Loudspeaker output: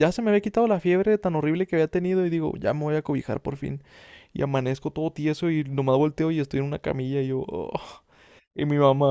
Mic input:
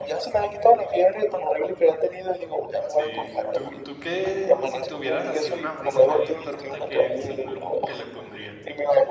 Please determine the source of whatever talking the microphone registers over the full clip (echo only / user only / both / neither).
both